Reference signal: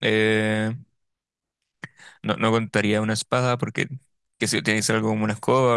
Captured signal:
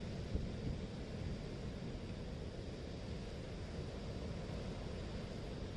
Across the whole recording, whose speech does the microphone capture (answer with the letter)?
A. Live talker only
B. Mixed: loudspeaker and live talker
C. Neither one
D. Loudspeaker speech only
C